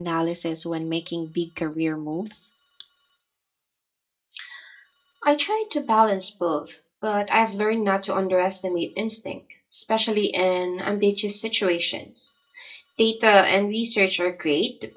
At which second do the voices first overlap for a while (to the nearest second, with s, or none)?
none